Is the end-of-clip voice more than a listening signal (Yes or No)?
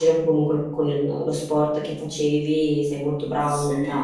Yes